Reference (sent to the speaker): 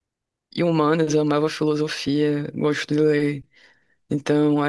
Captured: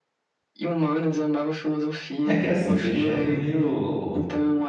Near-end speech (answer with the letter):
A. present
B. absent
A